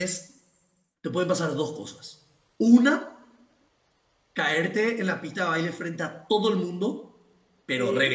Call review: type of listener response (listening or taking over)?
listening